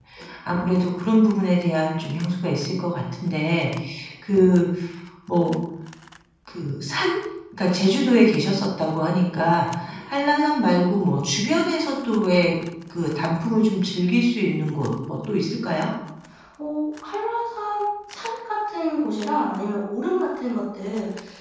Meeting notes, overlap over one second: none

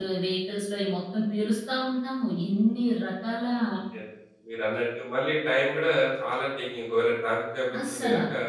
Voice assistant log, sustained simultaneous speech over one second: none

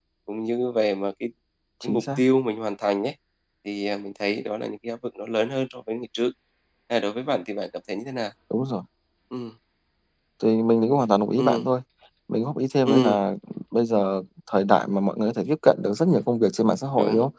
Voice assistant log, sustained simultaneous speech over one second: none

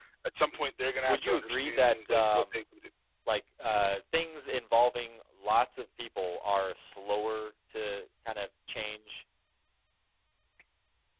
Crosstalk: present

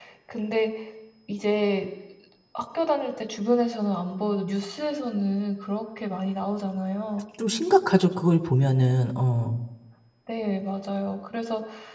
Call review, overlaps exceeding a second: none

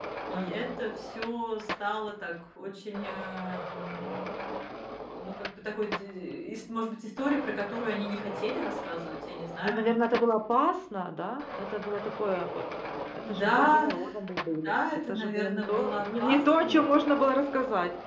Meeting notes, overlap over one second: present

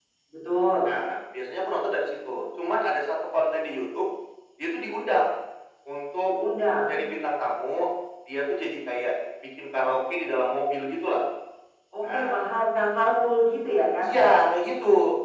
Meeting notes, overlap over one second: none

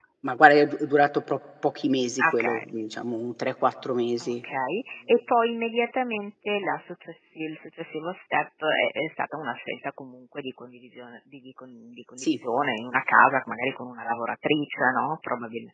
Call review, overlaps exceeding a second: none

